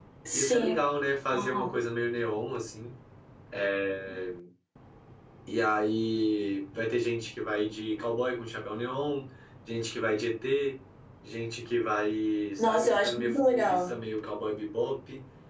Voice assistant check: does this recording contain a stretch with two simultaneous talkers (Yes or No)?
Yes